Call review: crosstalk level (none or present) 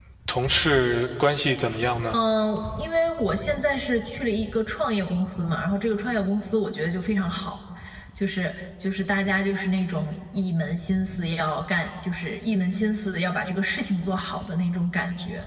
none